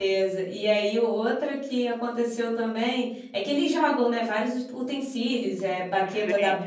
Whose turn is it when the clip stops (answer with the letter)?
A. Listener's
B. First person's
B